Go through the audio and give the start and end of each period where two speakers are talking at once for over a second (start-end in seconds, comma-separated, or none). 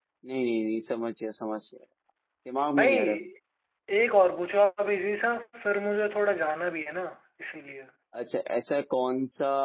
none